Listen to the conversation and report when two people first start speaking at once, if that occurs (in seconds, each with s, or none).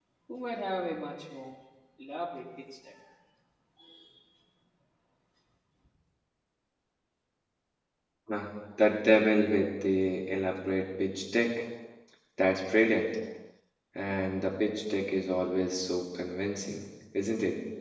none